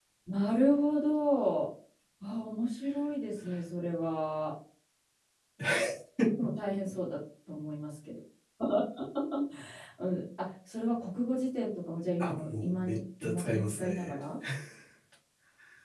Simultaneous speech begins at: 12.2 s

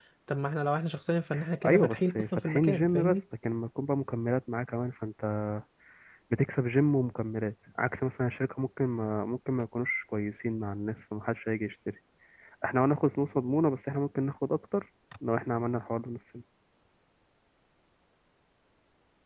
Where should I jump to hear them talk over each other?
1.7 s

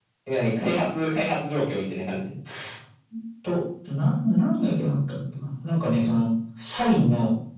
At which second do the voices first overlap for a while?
none

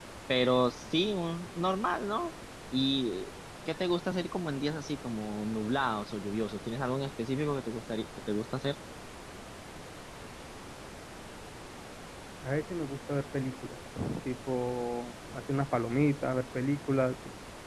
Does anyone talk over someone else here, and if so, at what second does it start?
none

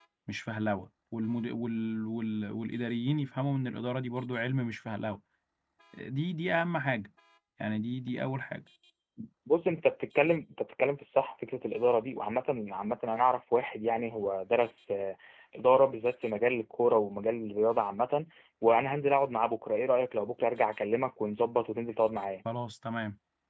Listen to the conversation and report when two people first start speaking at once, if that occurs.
none

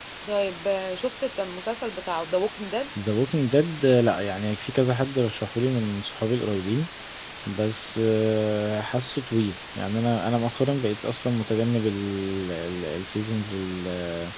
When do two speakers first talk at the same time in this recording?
none

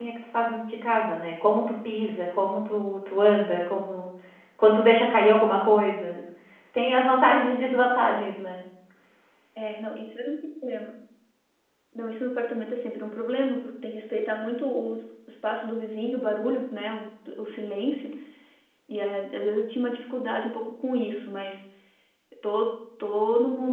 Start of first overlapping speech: none

